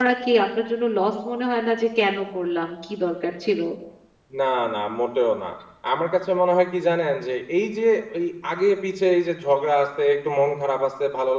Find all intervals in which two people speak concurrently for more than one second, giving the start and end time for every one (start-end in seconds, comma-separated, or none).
none